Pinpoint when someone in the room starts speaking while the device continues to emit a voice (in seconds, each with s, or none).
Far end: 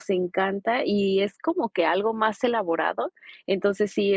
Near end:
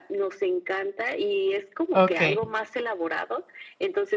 1.9 s